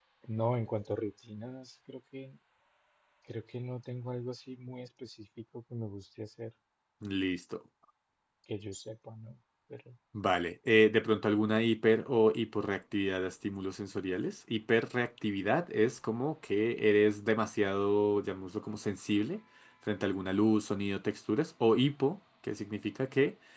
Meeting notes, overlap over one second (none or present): none